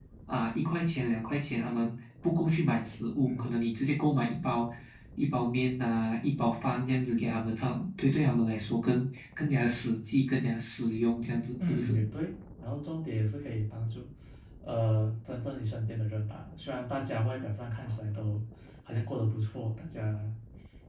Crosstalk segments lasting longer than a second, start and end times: none

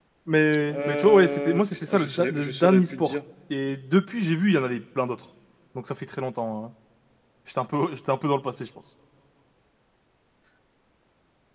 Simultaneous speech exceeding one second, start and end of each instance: 0.7-3.2

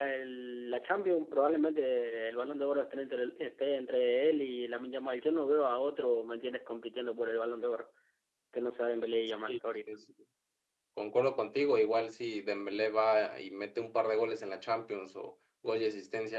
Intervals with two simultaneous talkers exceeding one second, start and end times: none

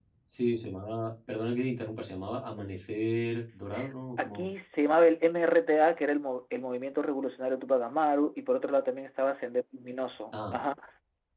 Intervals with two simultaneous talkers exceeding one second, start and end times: none

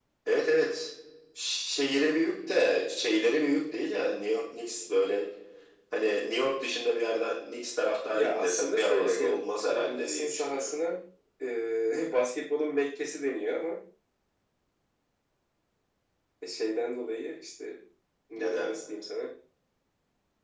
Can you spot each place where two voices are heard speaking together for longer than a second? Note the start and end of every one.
8.1-10.8

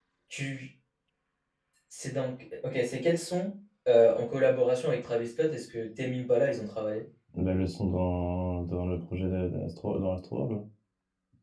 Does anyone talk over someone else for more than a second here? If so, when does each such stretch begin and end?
none

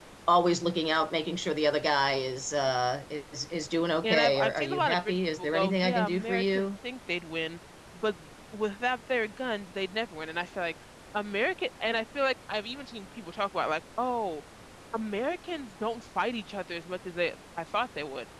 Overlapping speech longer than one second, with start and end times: 4.0-6.7

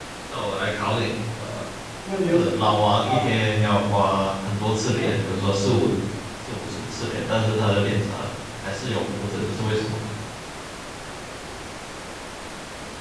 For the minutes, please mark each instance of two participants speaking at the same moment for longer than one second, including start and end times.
none

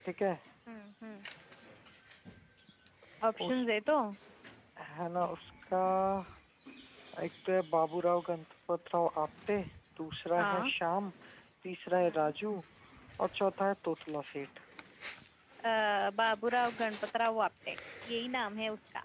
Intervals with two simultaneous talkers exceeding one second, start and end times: none

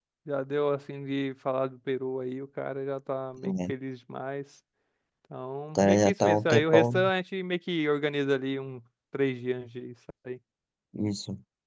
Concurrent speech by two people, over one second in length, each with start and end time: 5.8-7.0

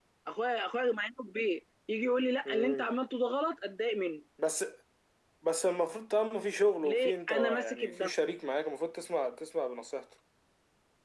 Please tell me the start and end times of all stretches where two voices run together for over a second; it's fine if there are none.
6.8-8.1

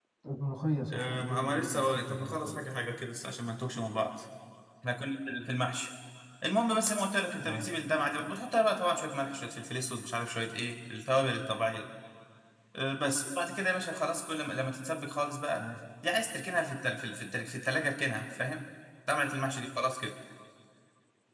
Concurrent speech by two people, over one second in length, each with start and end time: 0.9-2.6

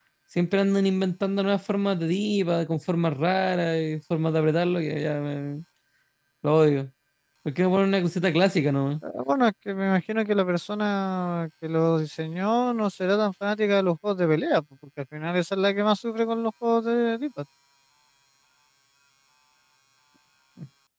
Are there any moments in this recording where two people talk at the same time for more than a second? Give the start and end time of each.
none

